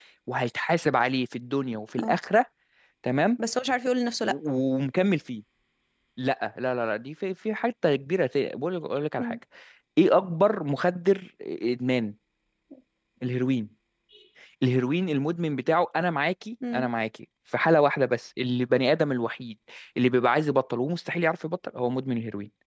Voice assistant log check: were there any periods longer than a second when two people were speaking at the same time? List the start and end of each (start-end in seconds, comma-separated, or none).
none